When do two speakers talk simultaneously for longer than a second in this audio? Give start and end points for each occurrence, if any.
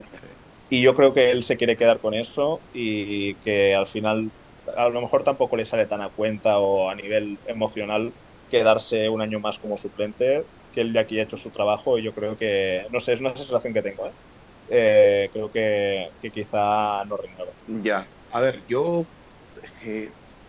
none

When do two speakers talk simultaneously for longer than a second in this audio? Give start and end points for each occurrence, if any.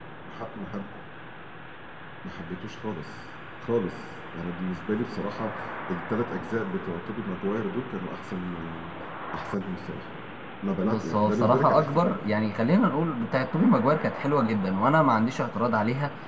10.8-12.2

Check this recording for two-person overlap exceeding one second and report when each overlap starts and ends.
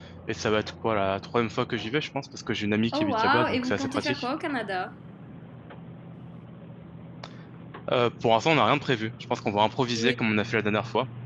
2.9-4.3

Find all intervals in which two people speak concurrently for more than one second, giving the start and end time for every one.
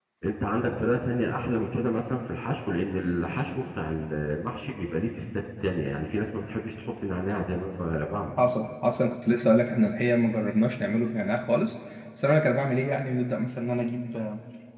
none

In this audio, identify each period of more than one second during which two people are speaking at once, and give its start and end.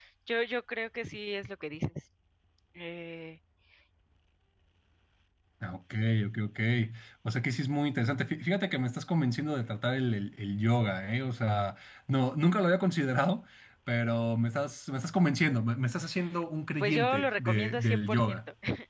16.8-18.4

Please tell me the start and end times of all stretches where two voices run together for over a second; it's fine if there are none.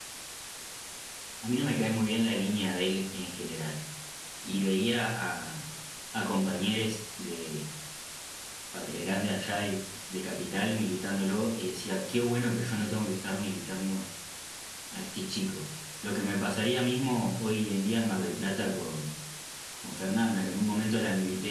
none

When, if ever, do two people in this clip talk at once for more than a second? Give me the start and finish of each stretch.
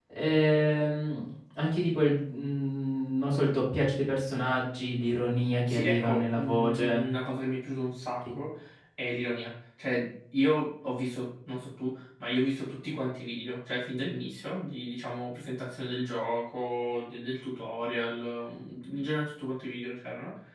5.7-7.1

